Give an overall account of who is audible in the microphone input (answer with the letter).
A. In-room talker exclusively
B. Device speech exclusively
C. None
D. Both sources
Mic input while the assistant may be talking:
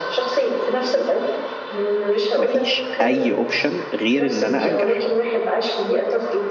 D